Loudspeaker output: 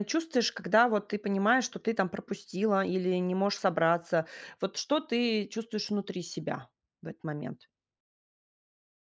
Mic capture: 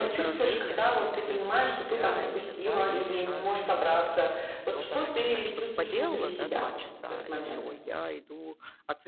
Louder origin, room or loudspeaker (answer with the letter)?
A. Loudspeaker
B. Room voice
A